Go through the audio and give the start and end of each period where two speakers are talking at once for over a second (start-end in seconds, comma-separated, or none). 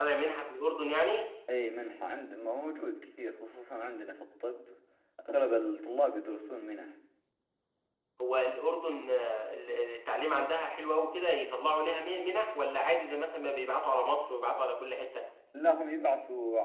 none